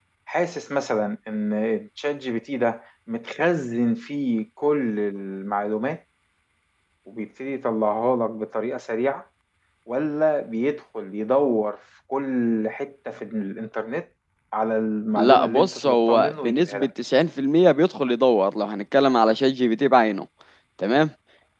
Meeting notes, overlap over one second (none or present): present